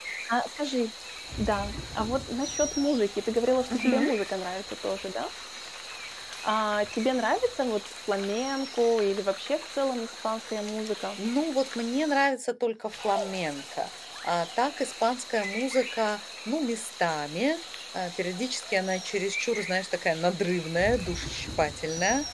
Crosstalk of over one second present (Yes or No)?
No